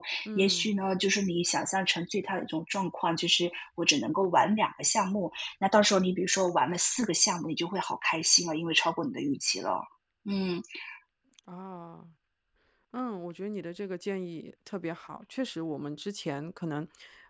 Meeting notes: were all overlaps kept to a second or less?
Yes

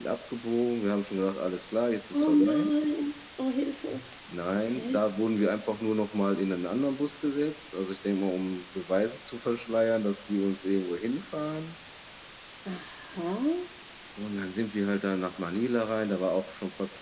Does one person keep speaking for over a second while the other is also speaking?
No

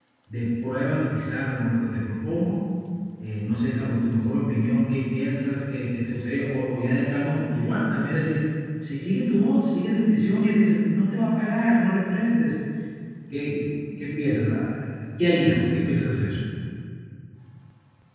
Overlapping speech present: No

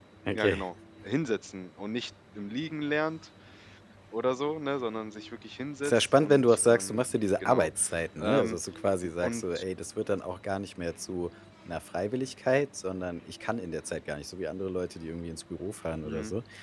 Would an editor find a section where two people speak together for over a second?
Yes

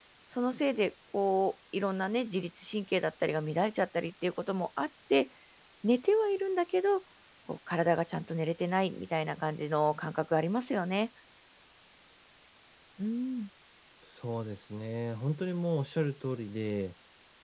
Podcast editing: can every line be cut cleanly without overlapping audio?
Yes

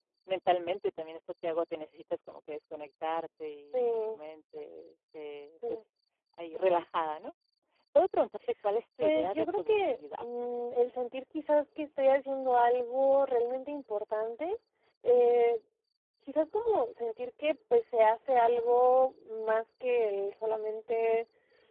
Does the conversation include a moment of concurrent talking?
Yes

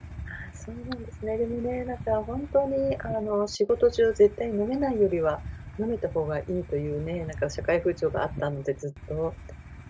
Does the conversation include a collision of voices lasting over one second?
No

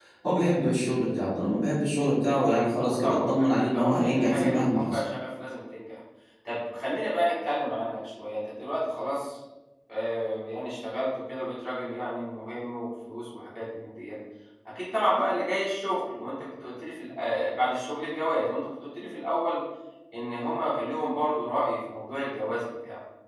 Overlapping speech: Yes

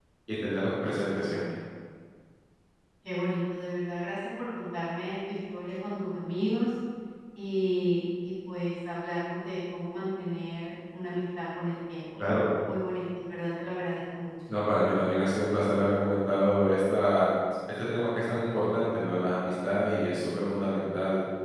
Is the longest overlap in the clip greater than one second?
No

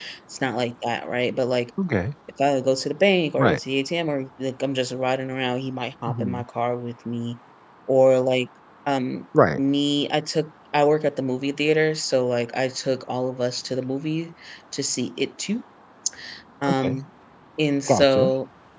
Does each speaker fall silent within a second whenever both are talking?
Yes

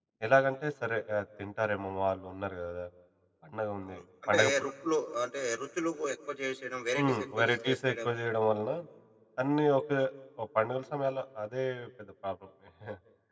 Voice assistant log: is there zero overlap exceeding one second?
No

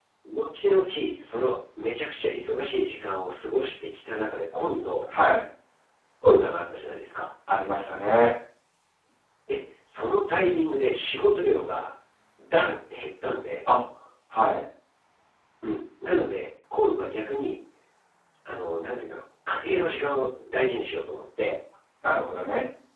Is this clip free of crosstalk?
Yes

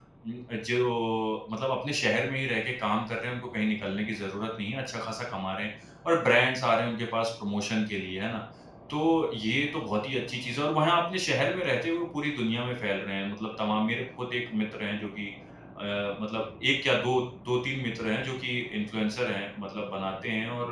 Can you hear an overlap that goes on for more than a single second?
No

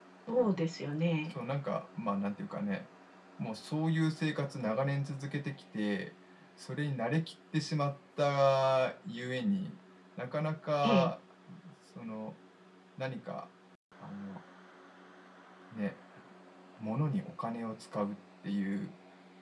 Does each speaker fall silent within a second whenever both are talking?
Yes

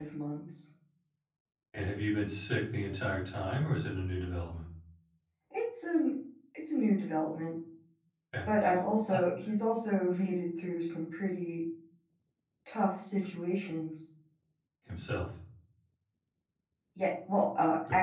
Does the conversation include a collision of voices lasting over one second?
No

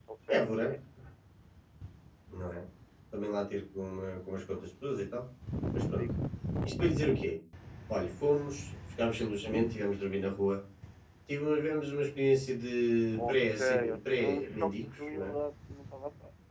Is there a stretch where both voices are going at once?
Yes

